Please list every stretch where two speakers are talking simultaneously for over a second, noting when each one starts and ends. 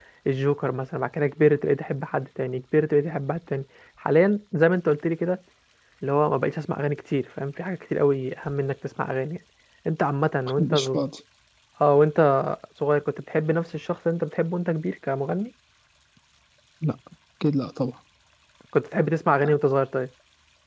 none

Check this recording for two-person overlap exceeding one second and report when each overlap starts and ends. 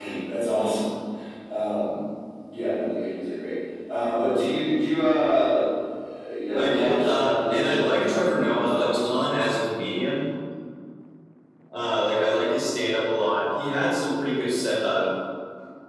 6.5-9.1

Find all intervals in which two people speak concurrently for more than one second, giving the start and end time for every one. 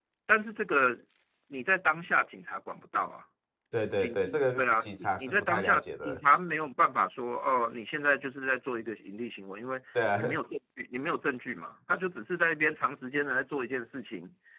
4.6-6.2

